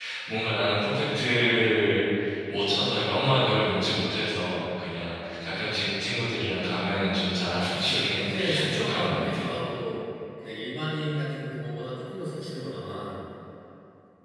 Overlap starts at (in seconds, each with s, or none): 7.0 s